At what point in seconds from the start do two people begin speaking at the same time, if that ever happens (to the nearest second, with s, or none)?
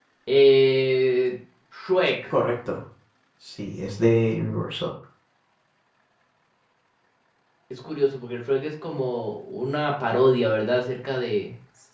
none